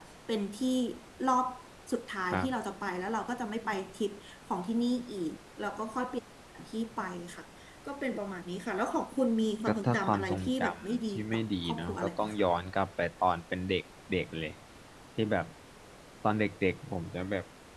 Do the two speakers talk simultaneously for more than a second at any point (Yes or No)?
Yes